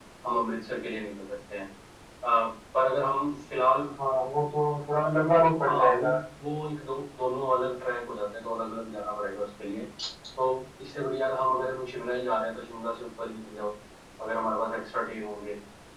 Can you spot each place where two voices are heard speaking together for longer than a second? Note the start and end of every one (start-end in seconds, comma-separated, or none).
none